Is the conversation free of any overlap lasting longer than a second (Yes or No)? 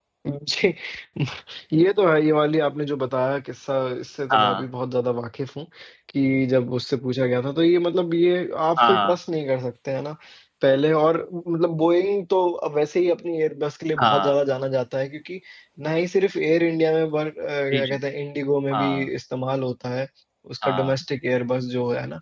Yes